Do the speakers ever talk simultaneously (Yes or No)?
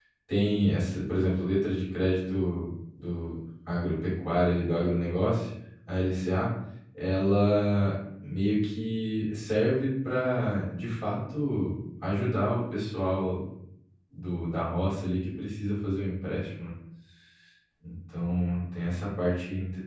No